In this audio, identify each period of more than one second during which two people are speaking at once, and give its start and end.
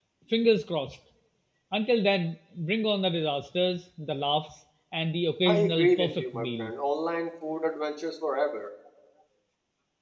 5.5-6.7

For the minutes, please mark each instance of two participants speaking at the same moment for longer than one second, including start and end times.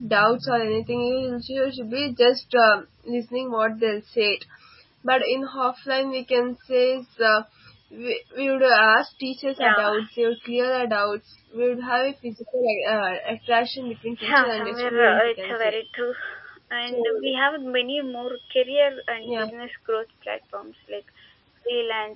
14.3-15.8

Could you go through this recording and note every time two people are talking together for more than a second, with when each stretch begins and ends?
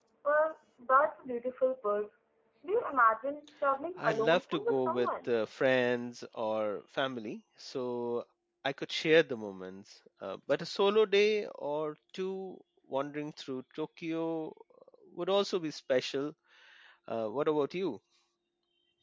4.0-5.3

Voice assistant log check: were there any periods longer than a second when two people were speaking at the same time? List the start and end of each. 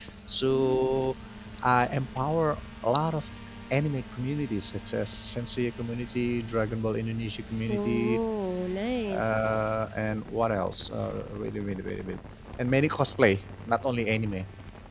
none

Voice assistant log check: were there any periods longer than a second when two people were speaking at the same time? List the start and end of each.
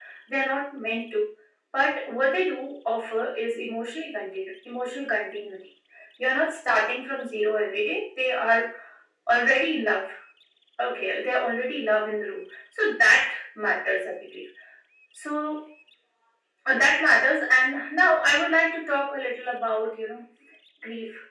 none

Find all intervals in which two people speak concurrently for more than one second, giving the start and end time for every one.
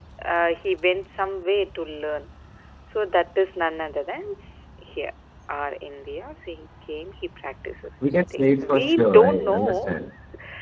8.1-9.9

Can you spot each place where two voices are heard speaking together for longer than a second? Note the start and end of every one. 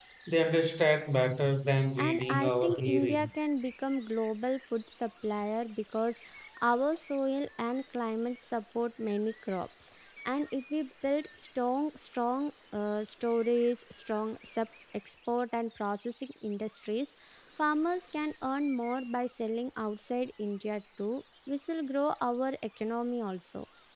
2.0-3.3

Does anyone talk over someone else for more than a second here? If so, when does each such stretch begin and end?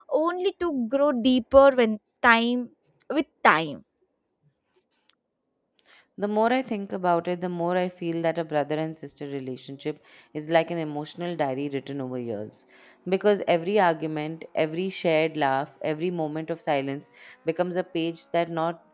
none

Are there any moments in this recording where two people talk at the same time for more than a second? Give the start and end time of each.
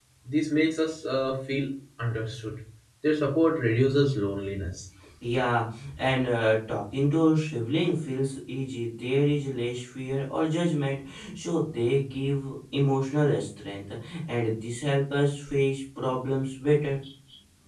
none

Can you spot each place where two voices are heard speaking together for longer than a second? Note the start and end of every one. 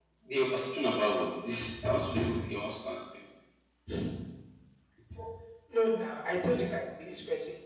none

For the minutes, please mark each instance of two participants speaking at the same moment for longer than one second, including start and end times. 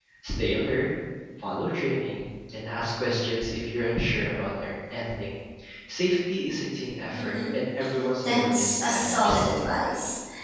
8.2-9.4

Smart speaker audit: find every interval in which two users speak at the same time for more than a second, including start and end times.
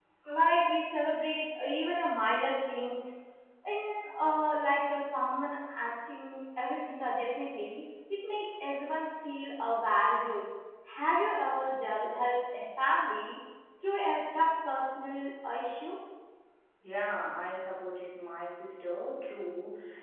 none

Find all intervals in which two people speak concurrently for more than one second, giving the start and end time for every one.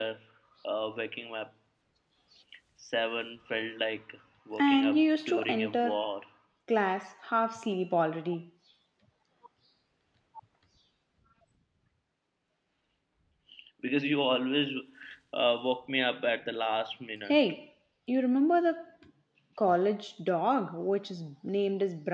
4.6-6.1

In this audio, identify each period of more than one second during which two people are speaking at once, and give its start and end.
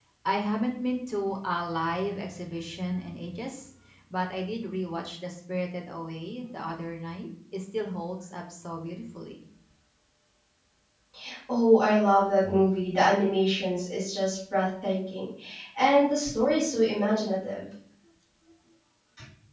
none

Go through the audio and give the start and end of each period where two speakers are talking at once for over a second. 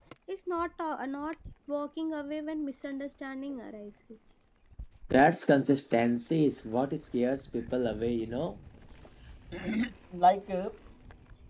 none

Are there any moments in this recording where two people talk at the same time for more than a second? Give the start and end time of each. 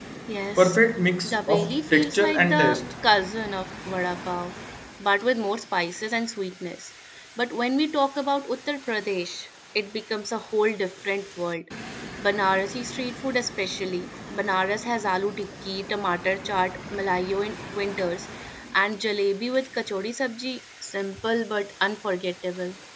1.2-2.8

